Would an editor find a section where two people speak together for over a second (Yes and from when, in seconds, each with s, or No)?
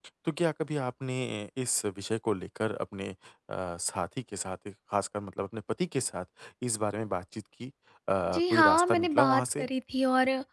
Yes, from 8.3 s